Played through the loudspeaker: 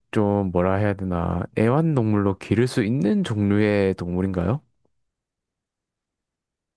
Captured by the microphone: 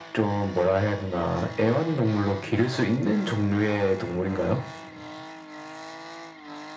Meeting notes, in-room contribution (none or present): none